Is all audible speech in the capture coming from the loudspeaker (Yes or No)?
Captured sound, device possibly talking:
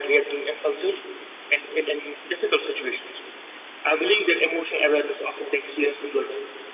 Yes